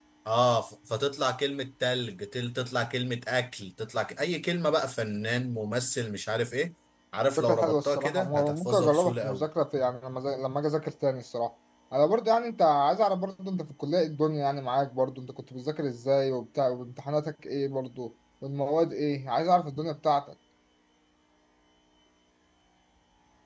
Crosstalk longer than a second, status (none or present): present